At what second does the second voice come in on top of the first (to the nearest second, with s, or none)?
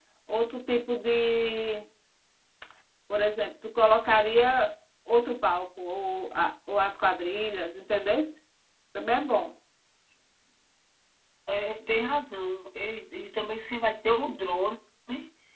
none